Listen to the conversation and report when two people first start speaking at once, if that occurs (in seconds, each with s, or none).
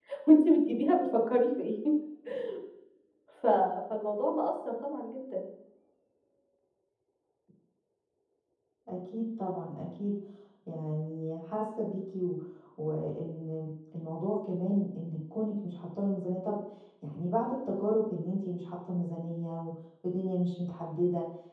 none